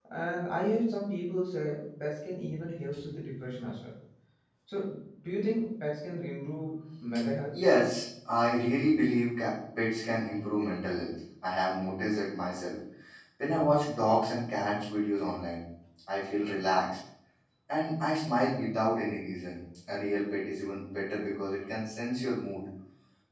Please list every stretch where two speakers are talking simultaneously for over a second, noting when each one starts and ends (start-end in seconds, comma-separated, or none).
none